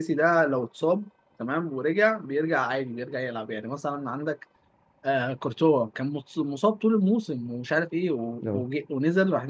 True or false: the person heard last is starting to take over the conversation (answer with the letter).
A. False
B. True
A